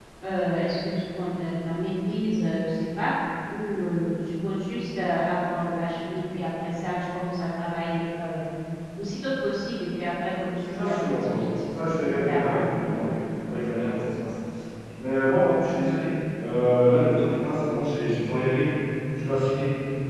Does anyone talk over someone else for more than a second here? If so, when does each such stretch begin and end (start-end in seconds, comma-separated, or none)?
10.6-12.8